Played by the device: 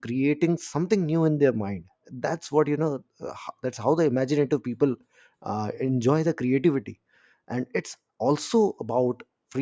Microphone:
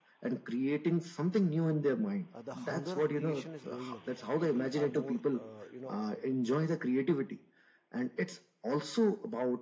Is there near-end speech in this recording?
Yes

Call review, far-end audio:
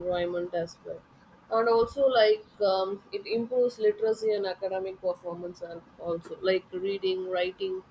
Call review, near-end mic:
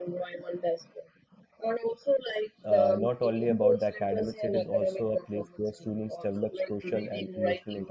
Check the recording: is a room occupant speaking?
Yes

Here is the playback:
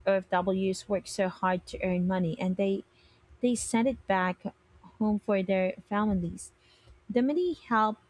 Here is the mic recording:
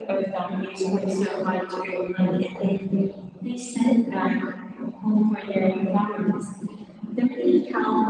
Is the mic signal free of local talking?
Yes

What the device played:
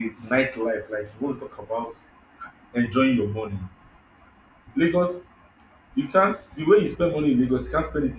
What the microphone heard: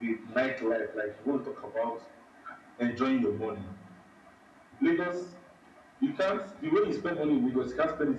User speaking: No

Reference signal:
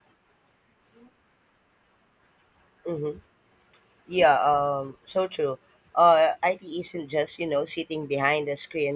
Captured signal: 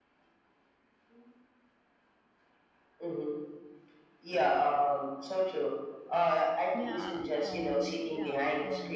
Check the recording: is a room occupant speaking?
Yes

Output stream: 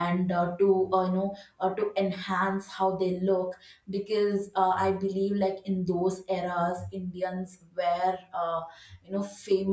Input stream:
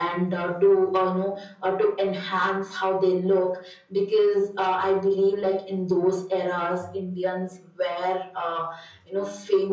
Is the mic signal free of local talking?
Yes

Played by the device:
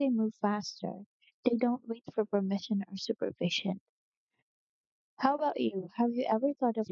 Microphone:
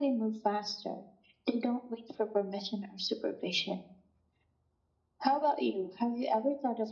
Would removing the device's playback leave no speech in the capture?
Yes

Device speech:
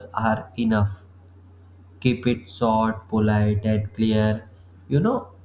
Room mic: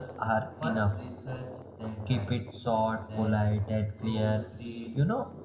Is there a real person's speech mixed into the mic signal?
Yes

